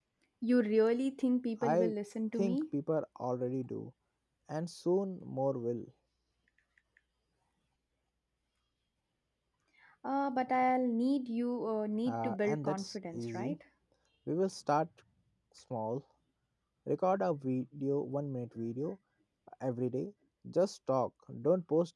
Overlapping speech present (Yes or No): Yes